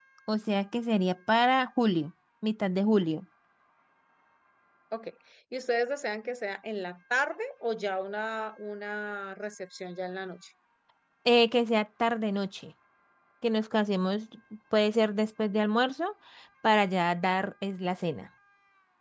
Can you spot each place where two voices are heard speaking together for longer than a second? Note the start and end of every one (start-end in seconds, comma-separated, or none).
none